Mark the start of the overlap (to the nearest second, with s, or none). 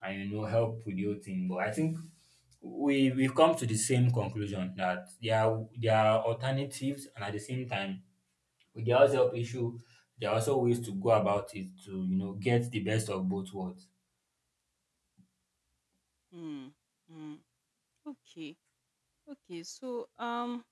none